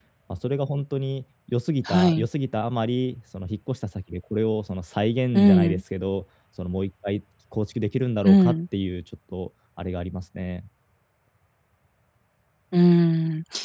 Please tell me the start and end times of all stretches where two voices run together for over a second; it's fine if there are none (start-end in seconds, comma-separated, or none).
none